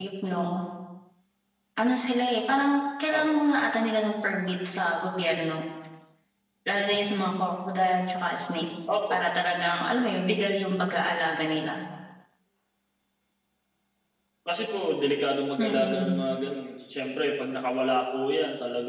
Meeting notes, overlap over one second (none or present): none